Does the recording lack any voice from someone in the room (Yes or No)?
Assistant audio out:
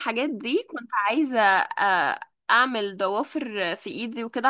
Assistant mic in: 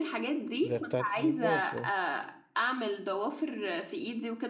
No